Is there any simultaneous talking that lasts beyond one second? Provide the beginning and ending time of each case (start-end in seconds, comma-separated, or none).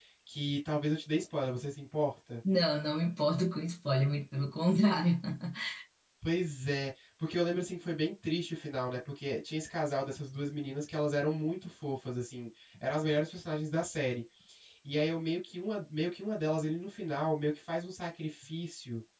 none